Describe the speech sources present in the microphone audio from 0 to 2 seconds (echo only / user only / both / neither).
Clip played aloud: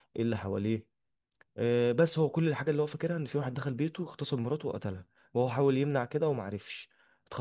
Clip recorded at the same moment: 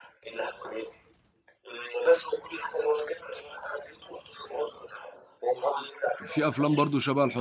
echo only